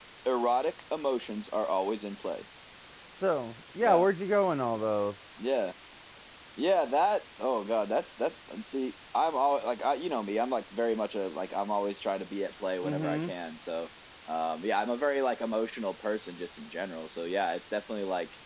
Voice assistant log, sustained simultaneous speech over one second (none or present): none